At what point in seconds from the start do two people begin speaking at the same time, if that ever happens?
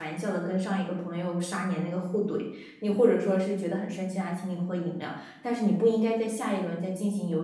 none

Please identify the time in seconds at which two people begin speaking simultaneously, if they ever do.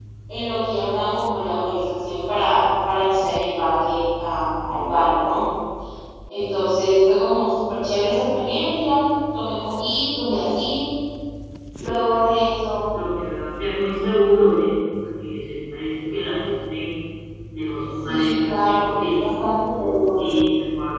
18.0 s

